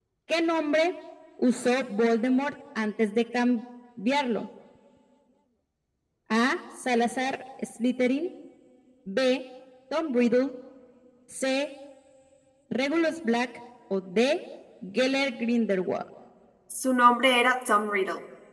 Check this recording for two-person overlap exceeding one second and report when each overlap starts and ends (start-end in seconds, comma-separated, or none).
none